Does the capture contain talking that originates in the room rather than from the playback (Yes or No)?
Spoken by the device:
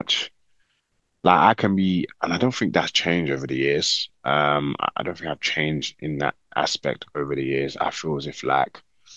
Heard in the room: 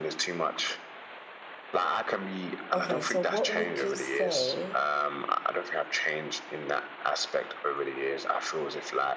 Yes